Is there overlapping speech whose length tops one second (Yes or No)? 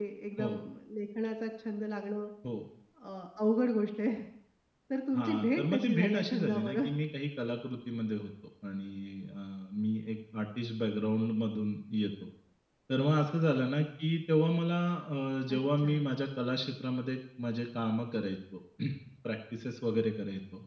Yes